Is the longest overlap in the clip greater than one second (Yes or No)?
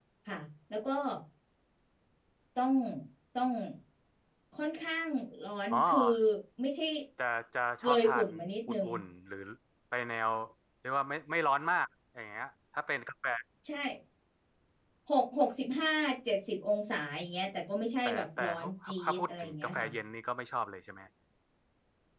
Yes